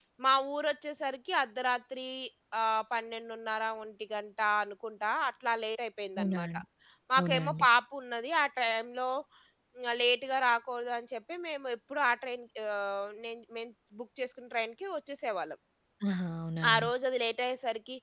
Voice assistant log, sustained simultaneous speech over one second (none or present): none